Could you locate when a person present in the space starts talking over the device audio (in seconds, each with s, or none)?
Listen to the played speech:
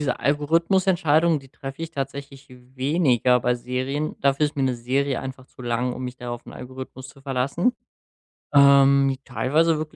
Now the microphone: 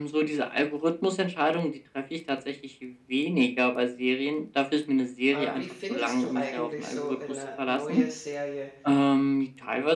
5.3 s